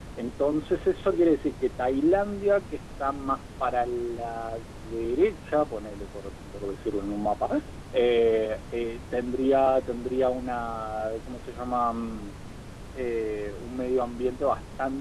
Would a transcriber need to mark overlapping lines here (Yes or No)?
No